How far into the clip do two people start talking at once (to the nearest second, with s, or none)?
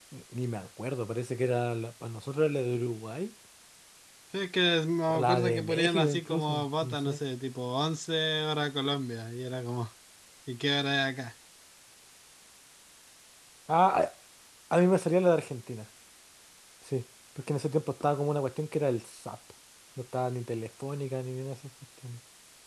5 s